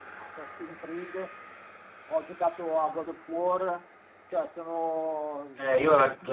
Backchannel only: No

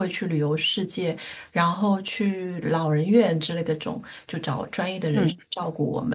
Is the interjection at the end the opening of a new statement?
No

